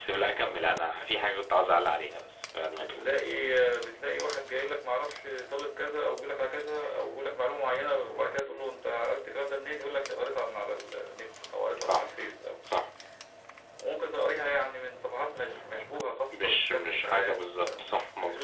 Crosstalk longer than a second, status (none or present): present